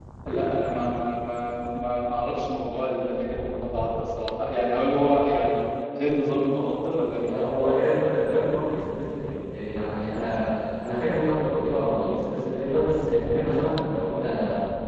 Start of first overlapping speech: none

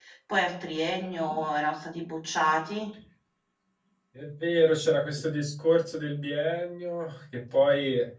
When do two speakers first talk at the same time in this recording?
none

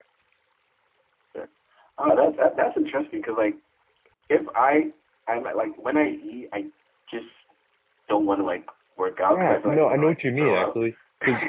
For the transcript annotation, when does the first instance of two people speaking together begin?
9.3 s

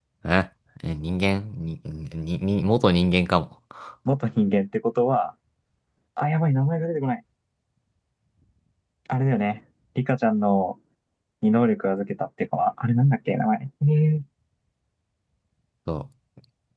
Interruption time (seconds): none

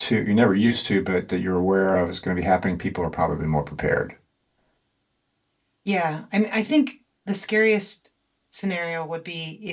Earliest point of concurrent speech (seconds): none

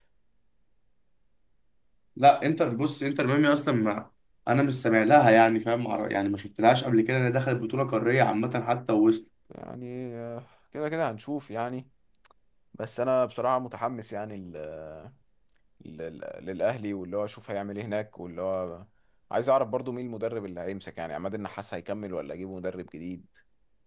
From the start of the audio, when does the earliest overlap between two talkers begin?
none

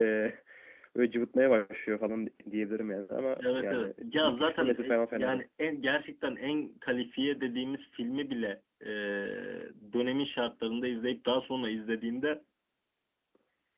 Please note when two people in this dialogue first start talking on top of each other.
3.4 s

